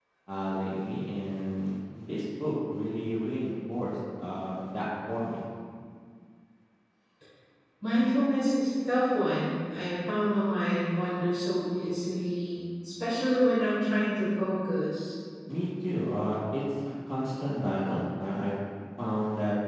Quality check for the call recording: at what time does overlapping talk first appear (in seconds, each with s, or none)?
none